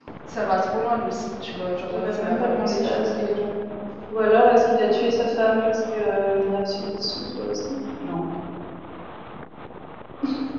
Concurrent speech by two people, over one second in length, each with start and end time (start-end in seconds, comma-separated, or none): 1.9-3.5